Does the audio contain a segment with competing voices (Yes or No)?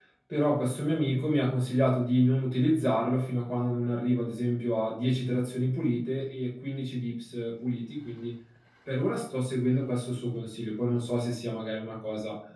No